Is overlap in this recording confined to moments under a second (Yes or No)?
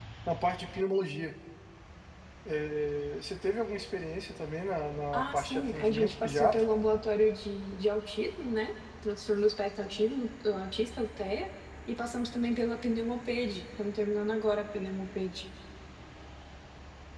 No